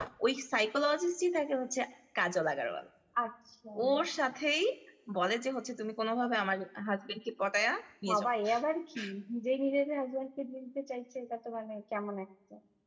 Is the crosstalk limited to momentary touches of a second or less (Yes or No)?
Yes